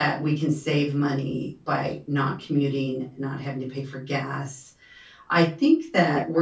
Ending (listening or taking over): listening